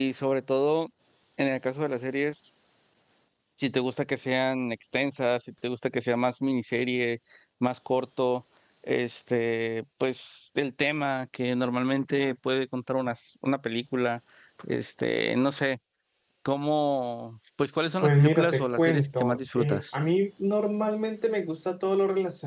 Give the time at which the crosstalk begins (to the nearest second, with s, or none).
18 s